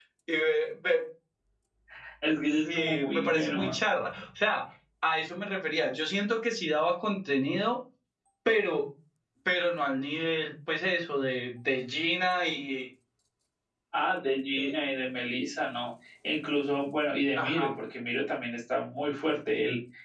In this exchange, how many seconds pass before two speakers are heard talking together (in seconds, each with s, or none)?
2.5 s